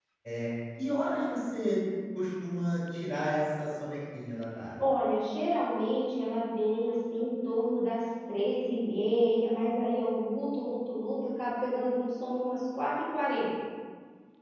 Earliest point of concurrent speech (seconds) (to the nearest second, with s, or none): none